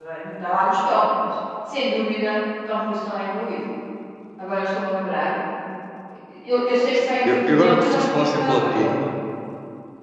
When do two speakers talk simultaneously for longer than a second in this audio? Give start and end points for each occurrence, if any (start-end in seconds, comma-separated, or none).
6.9-8.9